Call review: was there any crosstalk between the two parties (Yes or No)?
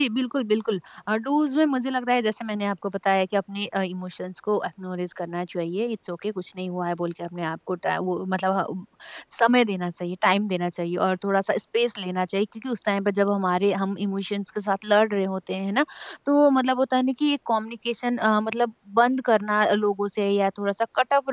No